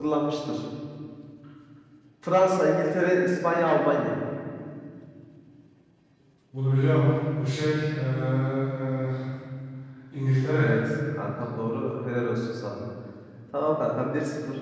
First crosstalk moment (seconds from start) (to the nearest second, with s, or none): none